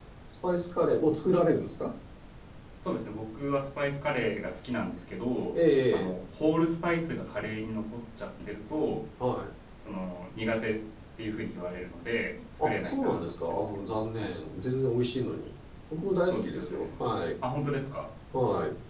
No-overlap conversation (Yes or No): No